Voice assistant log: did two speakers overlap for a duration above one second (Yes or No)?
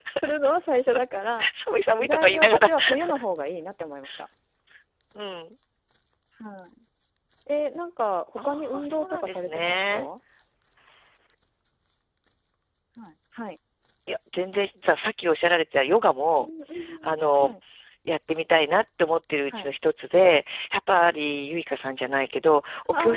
Yes